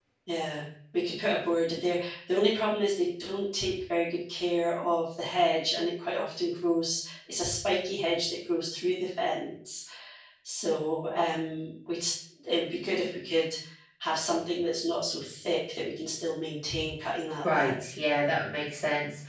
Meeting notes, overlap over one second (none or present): none